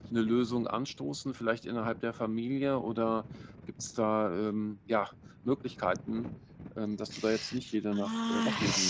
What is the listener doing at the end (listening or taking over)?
taking over